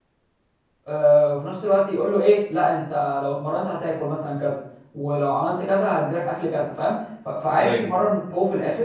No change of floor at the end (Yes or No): Yes